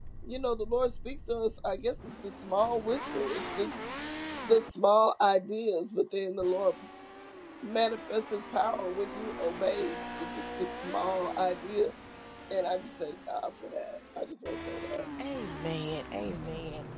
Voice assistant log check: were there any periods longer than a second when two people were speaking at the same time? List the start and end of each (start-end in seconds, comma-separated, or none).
none